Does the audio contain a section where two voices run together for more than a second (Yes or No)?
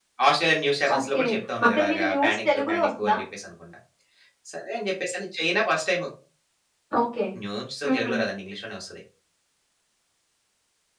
Yes